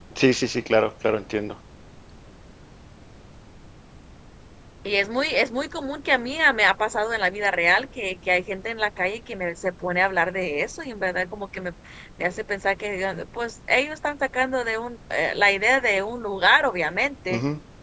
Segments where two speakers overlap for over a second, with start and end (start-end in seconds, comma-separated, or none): none